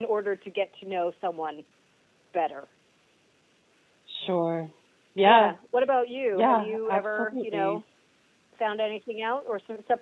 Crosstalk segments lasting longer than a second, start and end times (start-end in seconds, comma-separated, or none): 6.3-7.8